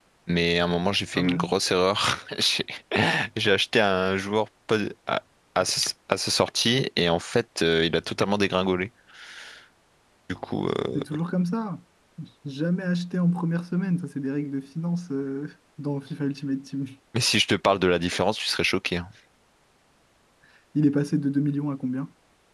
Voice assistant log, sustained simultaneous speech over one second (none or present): none